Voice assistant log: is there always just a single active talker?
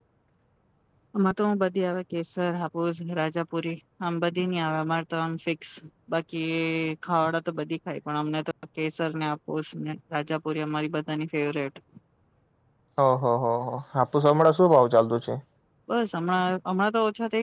Yes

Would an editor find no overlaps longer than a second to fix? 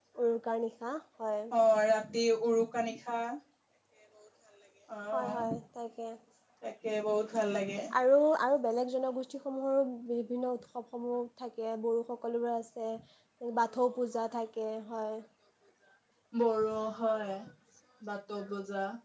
Yes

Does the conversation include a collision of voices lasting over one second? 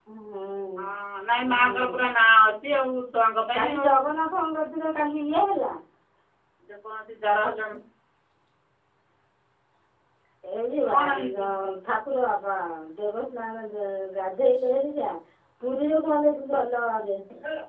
No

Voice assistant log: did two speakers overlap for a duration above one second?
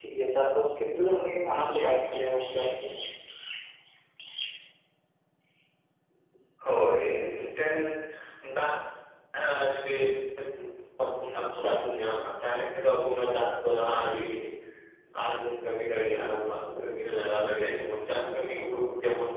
No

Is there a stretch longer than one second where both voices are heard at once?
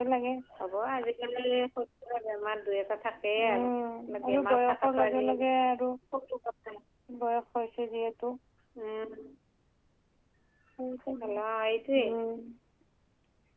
Yes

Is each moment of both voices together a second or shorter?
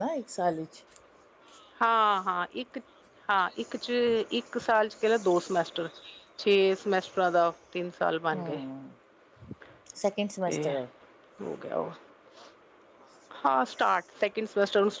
Yes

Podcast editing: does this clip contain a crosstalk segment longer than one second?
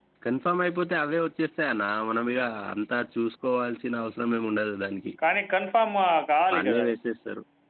No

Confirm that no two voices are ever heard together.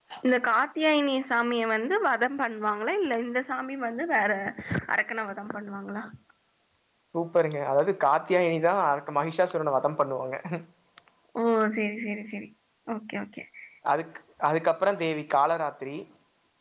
Yes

